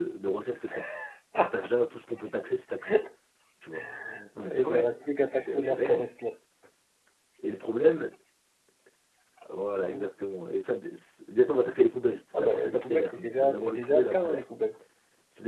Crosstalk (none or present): present